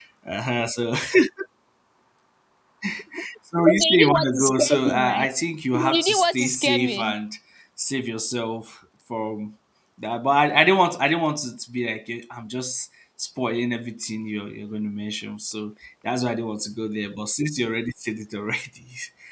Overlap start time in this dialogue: 4 s

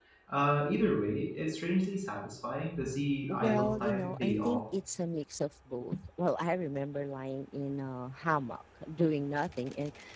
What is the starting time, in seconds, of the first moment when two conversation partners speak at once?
3 s

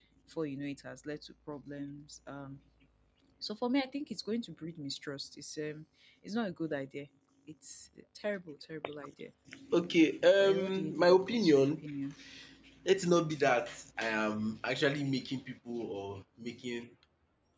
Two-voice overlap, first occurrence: 10 s

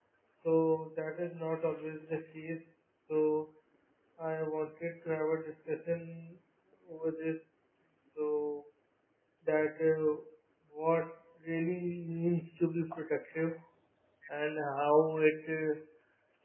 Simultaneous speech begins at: none

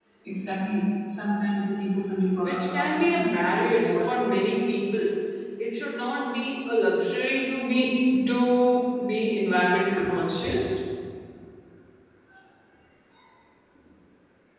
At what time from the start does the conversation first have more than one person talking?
2 s

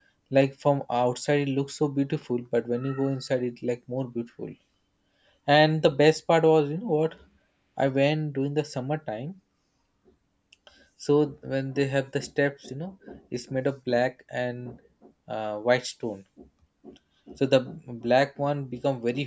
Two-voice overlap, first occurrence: none

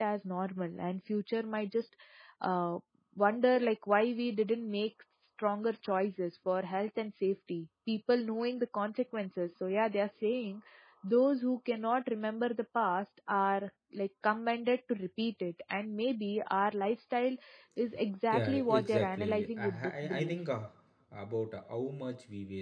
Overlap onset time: 18 s

